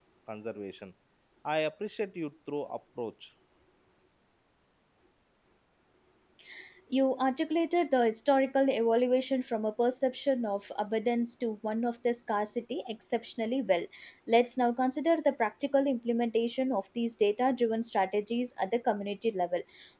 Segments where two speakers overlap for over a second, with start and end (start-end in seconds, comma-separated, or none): none